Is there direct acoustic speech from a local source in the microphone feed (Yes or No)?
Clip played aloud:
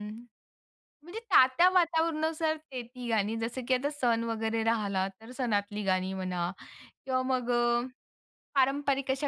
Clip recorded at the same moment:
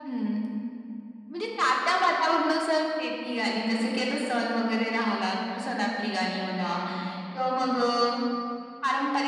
No